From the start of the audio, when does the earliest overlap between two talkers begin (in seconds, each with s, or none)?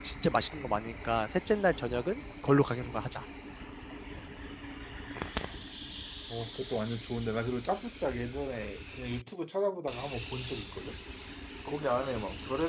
none